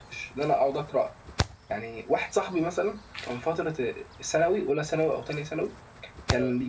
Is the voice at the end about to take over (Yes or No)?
No